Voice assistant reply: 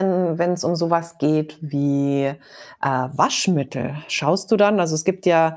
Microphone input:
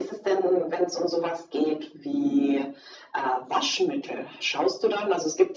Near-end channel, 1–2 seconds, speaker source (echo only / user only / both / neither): echo only